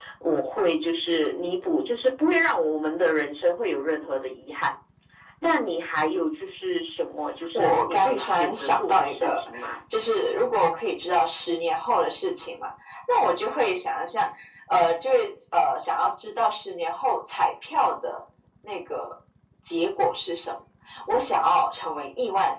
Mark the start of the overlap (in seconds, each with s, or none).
7.5 s